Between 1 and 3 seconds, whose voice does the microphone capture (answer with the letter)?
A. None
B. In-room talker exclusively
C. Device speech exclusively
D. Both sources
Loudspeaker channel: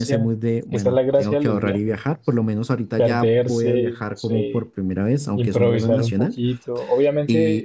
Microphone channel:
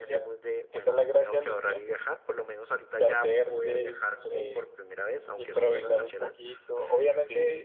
C